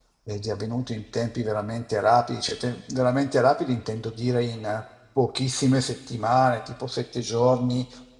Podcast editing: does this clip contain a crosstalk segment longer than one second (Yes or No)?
No